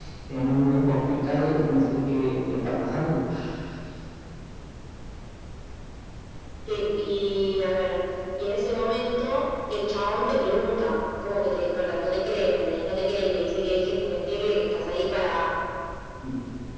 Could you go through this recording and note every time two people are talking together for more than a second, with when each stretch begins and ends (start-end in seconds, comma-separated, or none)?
none